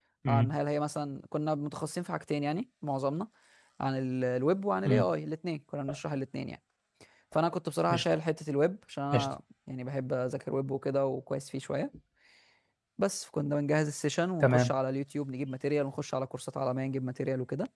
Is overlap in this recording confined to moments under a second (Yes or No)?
Yes